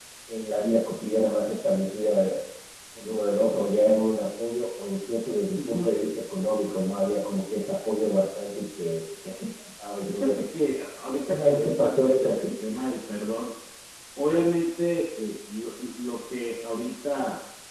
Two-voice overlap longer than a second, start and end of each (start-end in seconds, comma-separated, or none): 11.2-12.5